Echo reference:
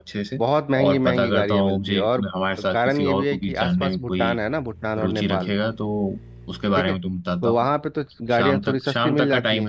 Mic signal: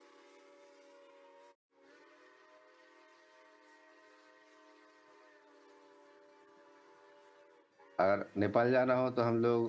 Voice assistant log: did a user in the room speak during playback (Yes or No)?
Yes